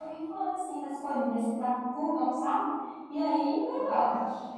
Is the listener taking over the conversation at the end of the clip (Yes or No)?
Yes